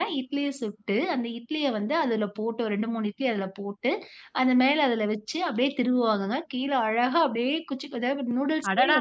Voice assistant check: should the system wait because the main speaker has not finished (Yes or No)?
No